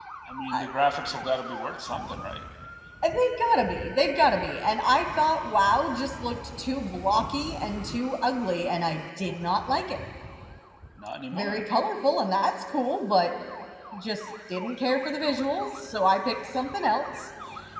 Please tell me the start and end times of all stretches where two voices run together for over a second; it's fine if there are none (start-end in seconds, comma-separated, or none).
none